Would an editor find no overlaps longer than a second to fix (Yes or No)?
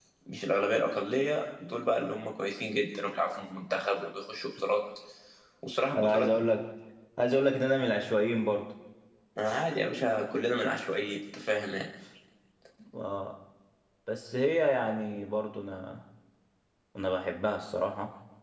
Yes